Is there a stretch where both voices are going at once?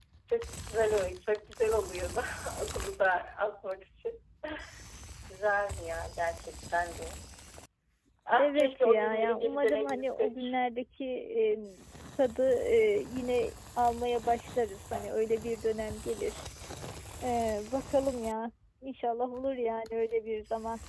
Yes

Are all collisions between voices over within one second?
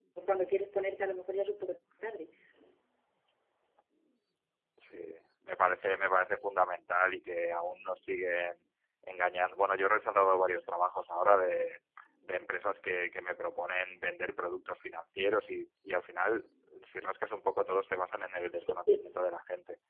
Yes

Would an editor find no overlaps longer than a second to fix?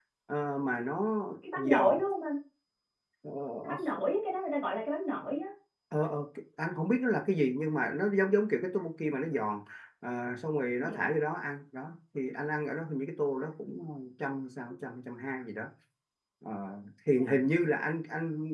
Yes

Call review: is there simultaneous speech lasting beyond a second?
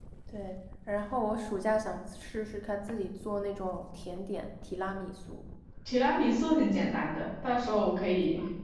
No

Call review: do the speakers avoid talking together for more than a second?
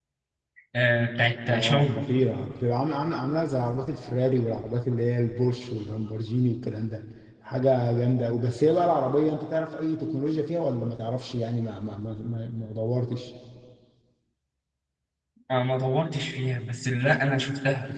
Yes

